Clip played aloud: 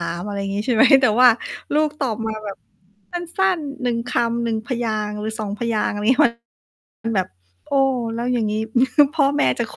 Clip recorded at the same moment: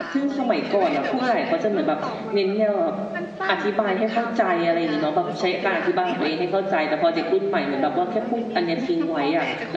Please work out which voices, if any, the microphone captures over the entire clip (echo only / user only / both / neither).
both